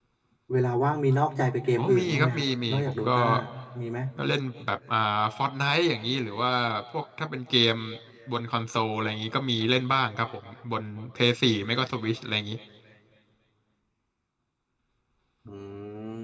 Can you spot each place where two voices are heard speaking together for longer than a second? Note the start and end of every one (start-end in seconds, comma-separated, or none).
1.8-3.2